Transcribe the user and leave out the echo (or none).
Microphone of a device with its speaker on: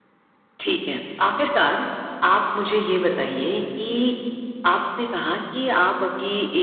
none